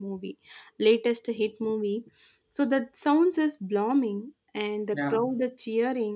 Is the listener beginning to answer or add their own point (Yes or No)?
No